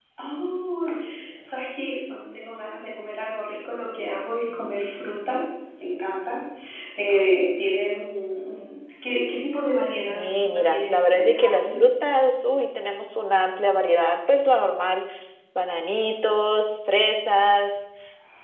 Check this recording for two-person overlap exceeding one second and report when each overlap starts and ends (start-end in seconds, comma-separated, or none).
10.1-11.7